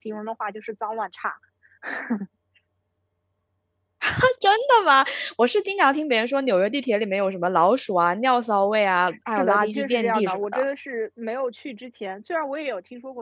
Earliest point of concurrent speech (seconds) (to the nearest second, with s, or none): 9 s